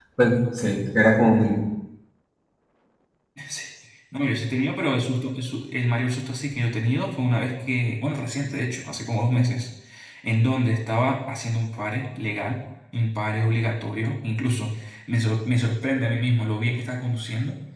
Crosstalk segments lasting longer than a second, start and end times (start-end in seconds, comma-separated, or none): none